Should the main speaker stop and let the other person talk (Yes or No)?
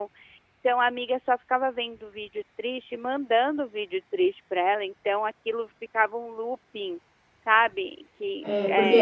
Yes